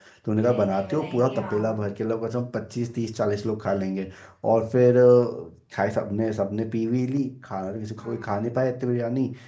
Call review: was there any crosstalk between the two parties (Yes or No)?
Yes